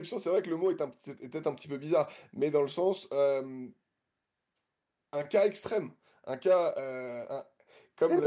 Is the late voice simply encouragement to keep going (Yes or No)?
No